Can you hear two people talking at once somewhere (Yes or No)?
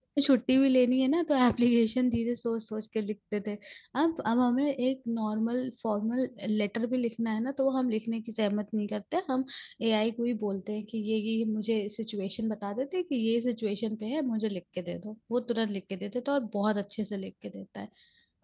No